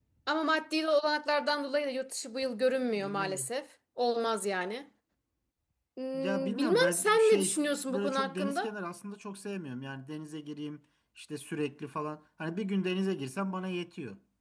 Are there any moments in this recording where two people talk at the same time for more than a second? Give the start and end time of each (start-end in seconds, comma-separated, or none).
6.1-8.7